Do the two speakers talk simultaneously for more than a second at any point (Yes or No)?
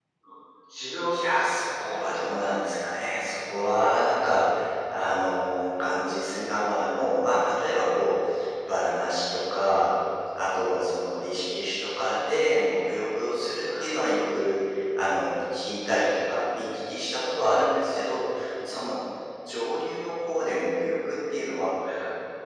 Yes